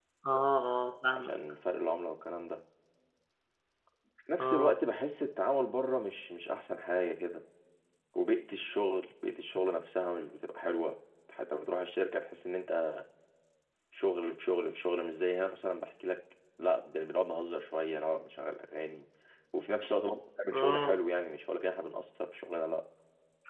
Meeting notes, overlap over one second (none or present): none